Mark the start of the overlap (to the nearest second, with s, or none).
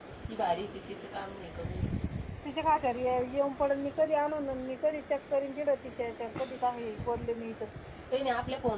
none